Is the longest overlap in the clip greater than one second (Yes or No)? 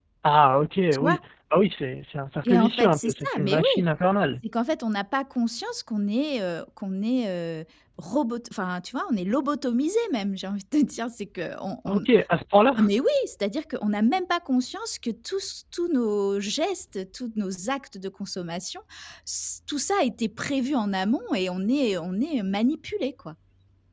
Yes